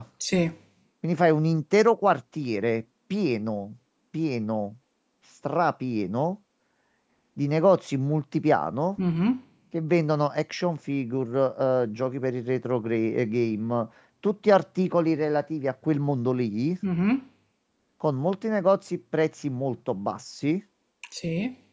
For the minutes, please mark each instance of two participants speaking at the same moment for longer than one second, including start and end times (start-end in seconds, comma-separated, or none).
none